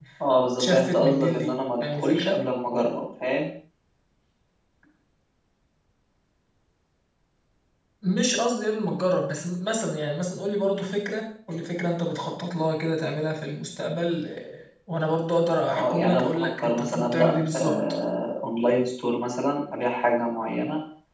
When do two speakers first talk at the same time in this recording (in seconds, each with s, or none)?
0.6 s